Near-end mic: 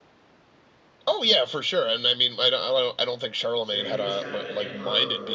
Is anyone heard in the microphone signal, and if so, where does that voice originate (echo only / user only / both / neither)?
both